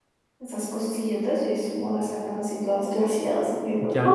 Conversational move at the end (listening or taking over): taking over